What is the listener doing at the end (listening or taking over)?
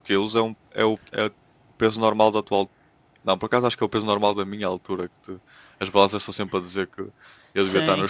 taking over